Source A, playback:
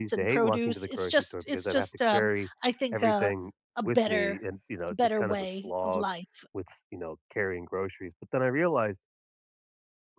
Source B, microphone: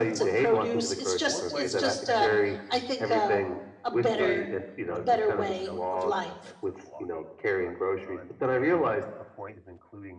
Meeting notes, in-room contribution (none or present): present